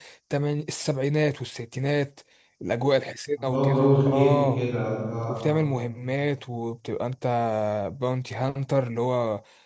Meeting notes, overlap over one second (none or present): present